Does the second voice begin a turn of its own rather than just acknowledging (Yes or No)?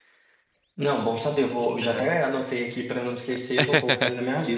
No